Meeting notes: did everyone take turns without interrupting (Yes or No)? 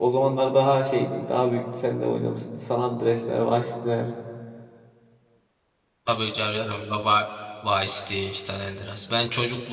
Yes